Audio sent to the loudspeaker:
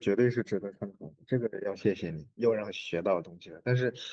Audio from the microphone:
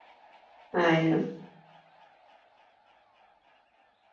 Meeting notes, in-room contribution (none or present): present